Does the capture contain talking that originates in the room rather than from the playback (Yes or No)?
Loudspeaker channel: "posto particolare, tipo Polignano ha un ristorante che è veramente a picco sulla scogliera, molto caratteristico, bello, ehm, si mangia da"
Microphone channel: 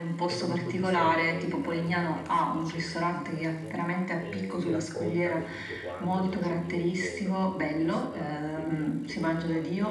Yes